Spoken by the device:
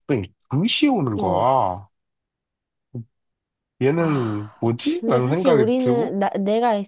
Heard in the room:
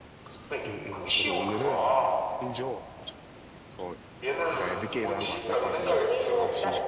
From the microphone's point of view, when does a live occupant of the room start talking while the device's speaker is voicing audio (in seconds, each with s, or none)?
0.7 s